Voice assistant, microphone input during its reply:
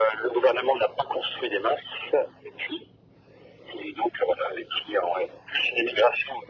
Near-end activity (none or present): none